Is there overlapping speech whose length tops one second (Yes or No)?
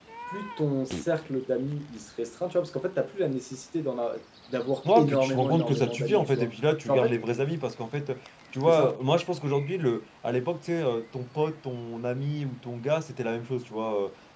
Yes